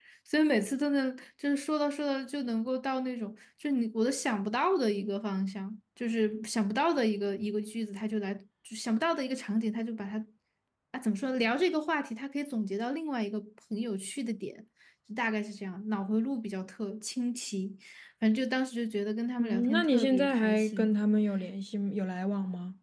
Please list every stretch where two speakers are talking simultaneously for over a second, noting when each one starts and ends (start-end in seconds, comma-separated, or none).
19.4-20.9